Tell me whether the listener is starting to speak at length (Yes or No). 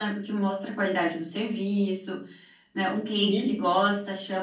No